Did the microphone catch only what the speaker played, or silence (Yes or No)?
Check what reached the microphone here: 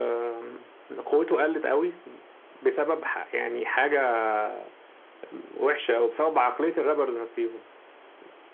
Yes